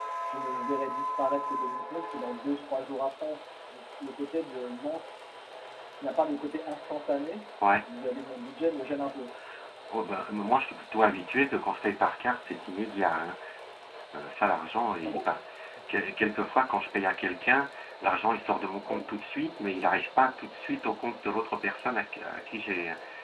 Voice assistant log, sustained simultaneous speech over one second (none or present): none